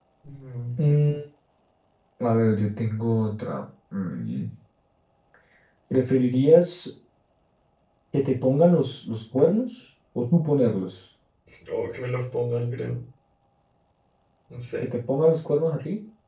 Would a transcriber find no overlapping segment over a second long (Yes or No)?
Yes